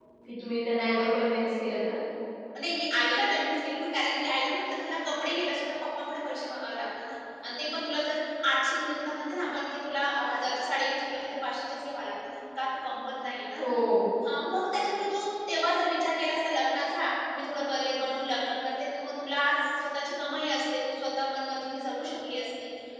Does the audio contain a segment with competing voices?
No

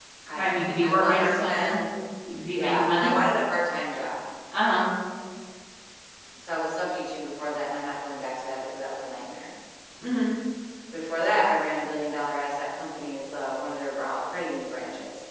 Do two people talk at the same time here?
Yes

